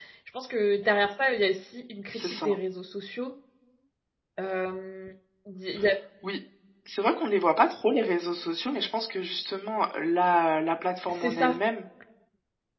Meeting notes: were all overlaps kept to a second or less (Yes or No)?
Yes